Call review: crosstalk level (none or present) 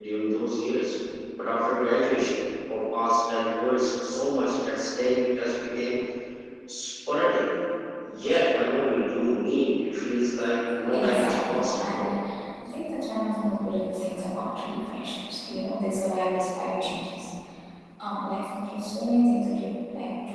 present